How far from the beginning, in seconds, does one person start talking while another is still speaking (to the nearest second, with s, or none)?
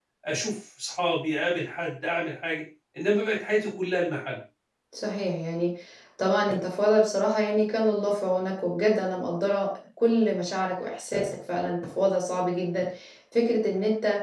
none